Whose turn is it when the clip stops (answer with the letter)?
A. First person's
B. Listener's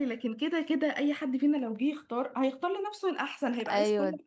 B